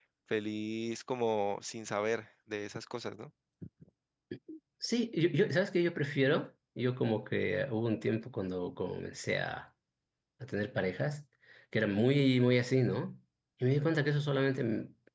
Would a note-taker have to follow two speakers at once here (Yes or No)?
No